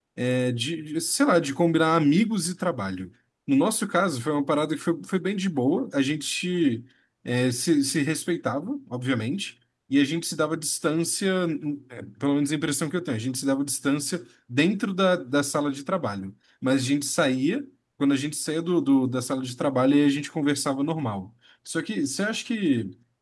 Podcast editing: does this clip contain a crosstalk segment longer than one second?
No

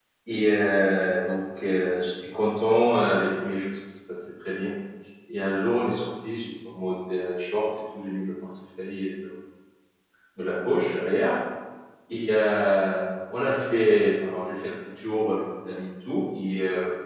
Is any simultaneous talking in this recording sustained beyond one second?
No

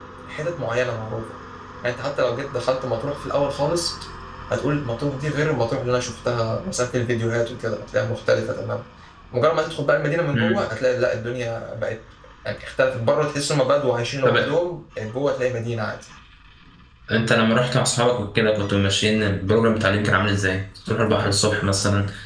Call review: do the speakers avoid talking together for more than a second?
Yes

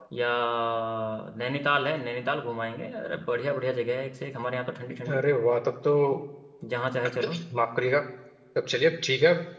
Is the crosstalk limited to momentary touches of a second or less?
Yes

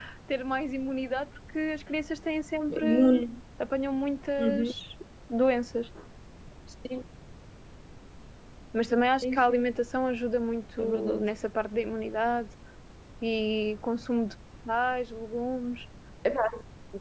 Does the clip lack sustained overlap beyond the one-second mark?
Yes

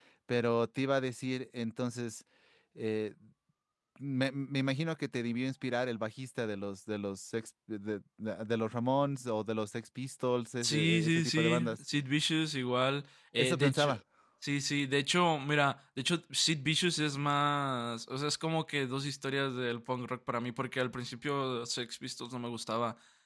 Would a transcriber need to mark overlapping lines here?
Yes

